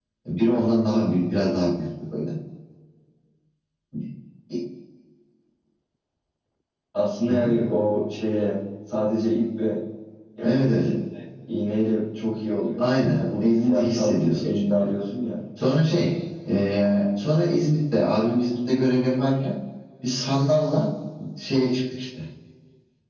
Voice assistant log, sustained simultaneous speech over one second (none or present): present